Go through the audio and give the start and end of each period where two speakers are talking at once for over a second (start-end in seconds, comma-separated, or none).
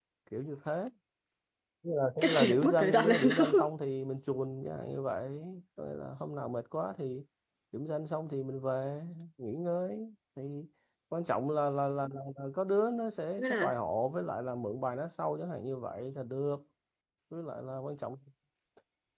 2.2-3.4